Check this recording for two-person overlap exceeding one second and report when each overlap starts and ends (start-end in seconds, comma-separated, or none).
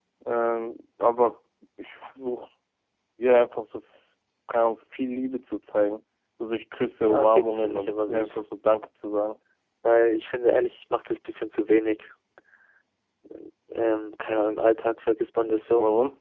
7.0-8.4